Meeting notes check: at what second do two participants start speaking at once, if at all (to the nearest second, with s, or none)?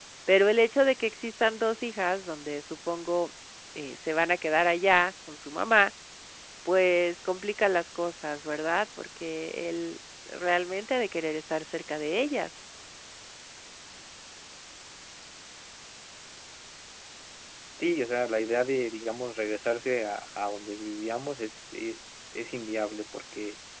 none